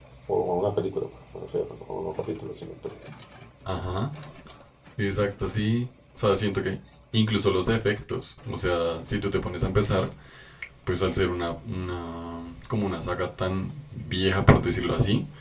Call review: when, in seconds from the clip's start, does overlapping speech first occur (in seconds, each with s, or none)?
none